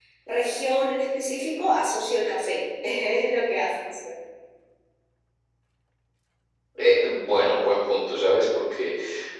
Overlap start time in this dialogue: none

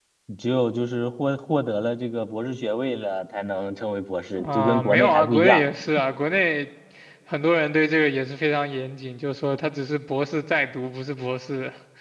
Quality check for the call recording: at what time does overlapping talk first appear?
4.3 s

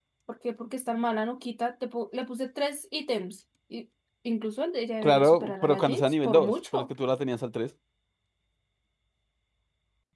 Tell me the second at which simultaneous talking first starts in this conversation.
5.0 s

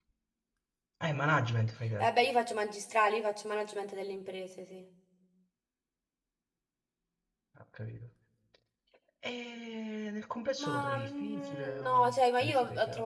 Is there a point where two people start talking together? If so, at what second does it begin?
10.6 s

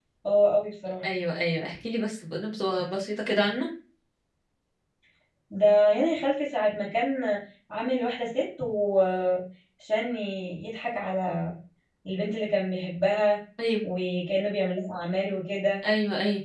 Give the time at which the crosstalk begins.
none

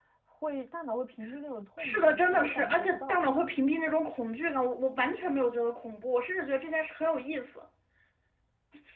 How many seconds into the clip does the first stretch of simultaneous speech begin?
1.8 s

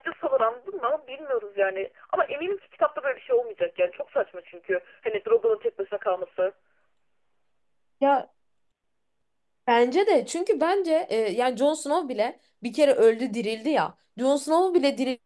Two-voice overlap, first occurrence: none

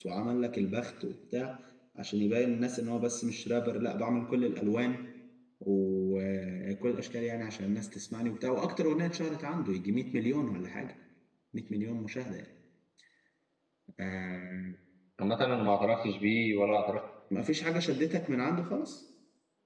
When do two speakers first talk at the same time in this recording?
none

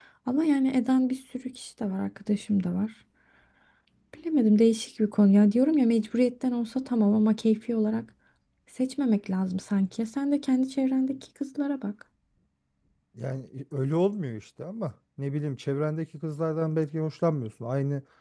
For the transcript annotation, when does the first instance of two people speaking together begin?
none

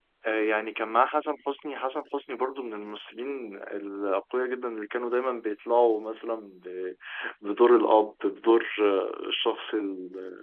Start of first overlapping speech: none

